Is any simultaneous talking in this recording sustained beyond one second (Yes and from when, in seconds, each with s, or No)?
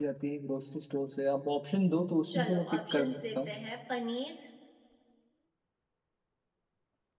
Yes, from 2.3 s